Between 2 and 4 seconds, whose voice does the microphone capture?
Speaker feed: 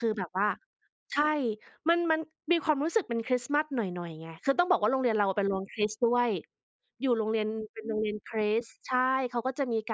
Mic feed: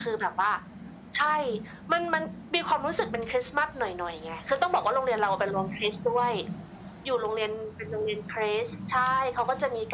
echo only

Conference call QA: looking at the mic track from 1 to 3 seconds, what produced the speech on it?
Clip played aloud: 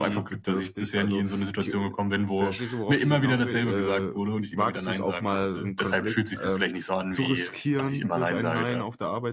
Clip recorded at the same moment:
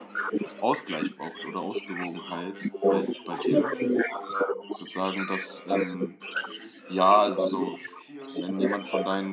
both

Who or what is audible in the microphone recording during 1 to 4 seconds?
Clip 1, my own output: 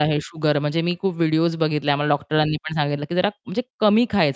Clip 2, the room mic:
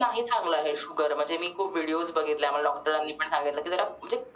echo only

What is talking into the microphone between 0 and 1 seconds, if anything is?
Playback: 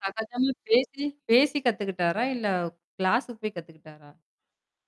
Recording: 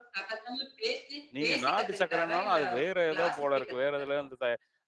echo only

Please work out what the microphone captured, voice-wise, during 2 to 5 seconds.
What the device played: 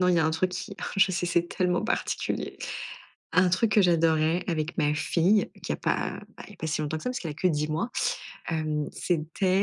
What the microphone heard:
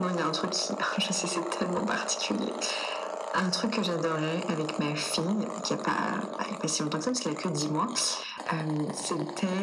echo only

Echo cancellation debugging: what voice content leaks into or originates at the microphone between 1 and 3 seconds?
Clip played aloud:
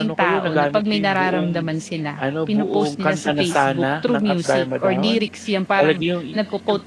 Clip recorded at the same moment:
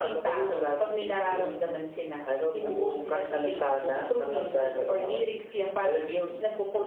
echo only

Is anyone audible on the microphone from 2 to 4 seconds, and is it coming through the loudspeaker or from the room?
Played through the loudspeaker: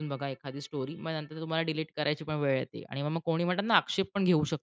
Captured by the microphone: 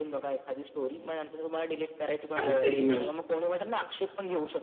both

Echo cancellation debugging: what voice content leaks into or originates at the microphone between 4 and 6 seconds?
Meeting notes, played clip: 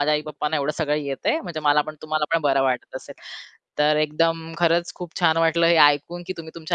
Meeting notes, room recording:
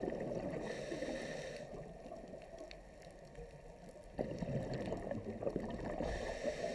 neither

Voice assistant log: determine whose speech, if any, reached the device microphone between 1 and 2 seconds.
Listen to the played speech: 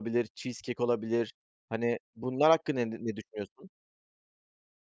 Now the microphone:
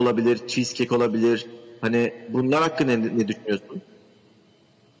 echo only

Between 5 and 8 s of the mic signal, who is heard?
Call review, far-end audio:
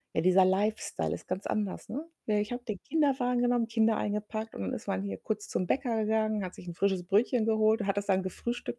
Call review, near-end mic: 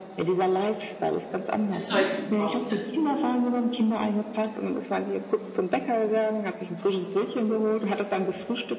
echo only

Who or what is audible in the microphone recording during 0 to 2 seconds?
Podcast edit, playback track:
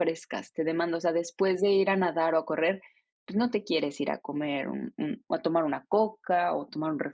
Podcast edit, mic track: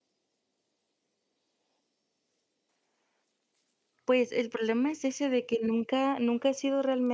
neither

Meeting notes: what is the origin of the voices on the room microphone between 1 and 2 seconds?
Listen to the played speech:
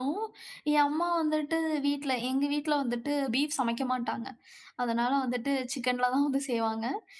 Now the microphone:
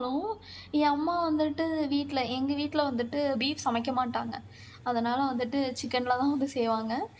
echo only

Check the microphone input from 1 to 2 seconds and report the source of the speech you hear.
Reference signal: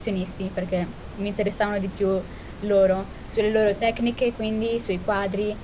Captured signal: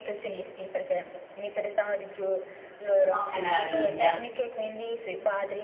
echo only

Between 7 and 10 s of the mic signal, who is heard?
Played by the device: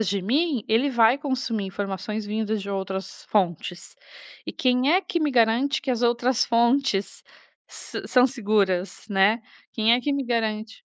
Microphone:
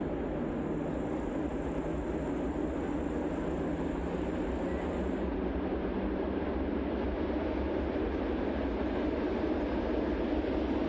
neither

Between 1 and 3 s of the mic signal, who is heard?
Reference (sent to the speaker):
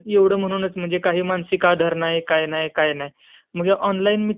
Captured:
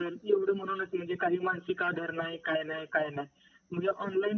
echo only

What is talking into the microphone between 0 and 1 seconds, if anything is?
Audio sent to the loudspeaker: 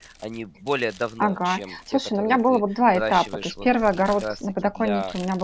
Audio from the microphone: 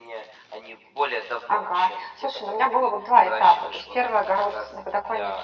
echo only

